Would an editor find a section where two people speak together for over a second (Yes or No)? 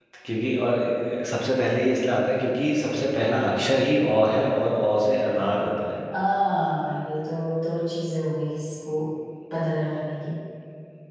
No